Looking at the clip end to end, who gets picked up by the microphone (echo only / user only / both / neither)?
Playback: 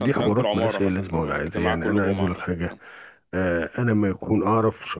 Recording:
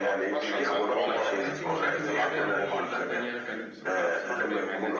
both